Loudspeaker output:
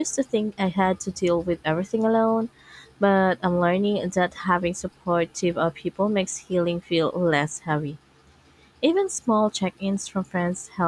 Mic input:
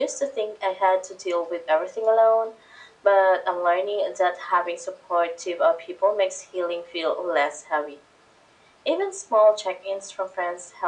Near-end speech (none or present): none